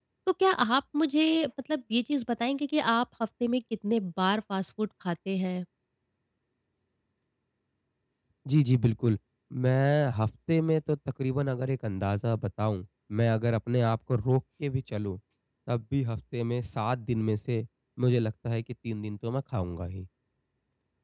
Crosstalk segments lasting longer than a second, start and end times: none

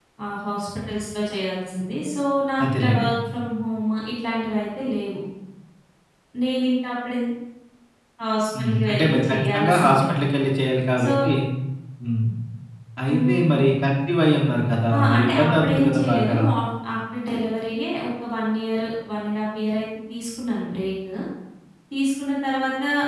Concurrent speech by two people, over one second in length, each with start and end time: 8.6-10.0, 14.9-16.4

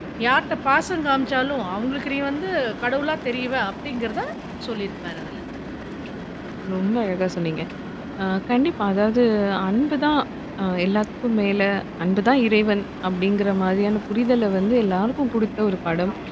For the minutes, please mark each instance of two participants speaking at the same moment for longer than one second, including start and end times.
none

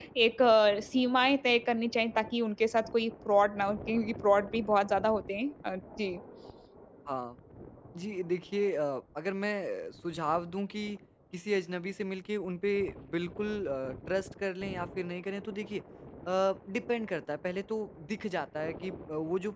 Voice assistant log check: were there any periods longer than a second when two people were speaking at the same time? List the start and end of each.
none

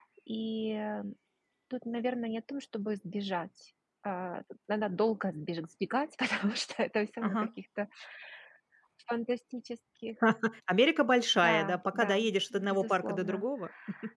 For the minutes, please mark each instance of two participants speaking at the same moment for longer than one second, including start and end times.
11.3-13.4

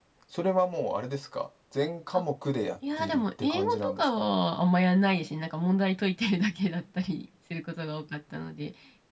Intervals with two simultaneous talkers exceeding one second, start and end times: 3.0-4.2

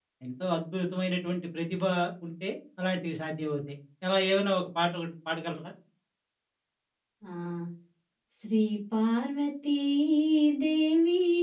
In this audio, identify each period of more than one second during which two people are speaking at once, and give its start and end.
none

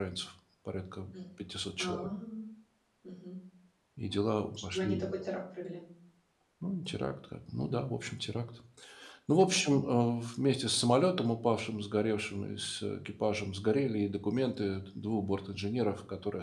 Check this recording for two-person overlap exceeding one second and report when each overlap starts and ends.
none

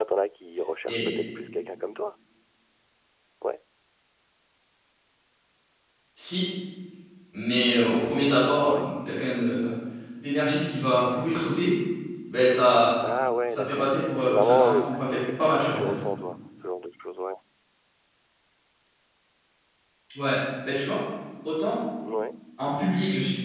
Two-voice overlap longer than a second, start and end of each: 13.5-15.9

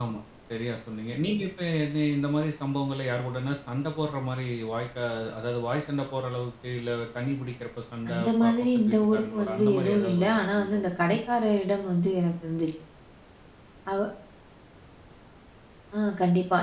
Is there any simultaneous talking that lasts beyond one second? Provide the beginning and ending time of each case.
8.1-11.2

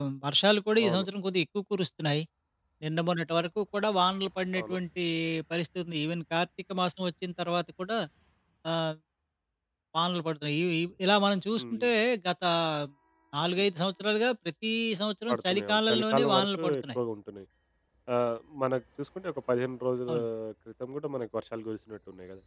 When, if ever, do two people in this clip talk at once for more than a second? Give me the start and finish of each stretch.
15.3-17.0

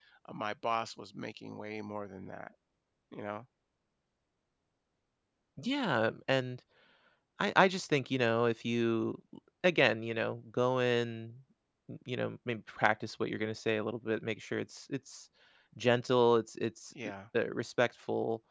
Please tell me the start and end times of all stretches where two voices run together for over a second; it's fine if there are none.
none

